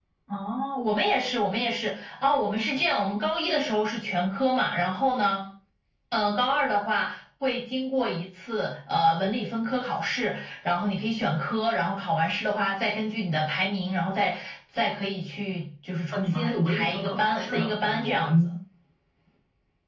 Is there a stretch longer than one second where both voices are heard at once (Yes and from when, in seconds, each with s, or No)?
Yes, from 16.1 s